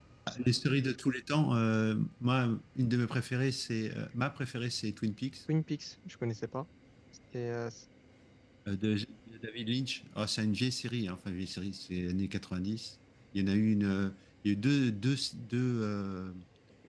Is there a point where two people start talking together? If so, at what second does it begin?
none

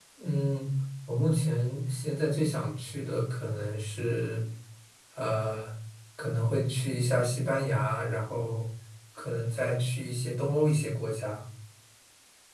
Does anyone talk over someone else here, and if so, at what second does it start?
none

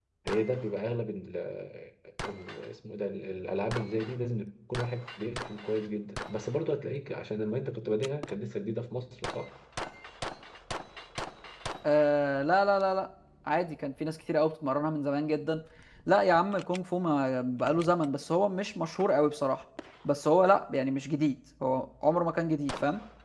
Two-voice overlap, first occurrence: none

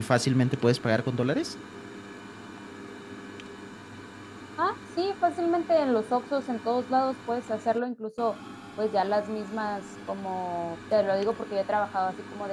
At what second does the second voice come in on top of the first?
none

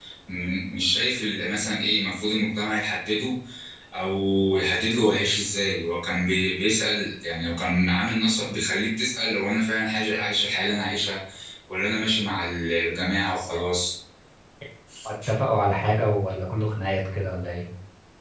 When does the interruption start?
none

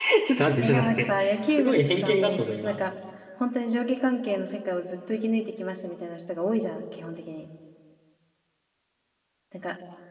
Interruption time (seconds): 0.6 s

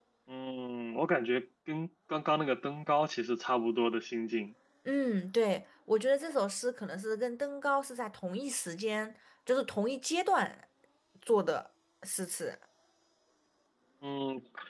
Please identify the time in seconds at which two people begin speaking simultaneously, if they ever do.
none

